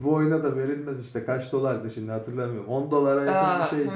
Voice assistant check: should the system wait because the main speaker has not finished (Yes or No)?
No